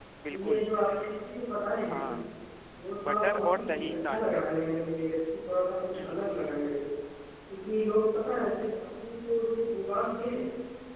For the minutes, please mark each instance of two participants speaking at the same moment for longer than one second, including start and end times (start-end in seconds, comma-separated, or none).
3.1-4.4